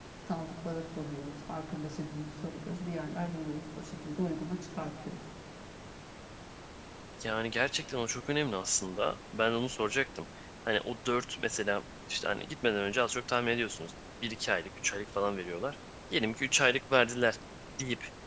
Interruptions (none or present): none